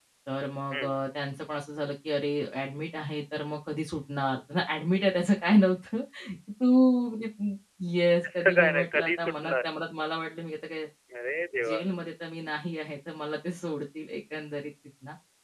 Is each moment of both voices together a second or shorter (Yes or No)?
No